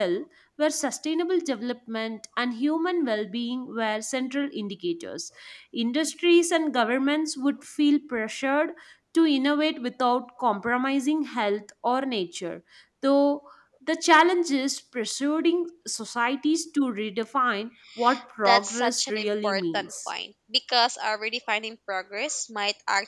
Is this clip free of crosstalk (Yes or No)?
No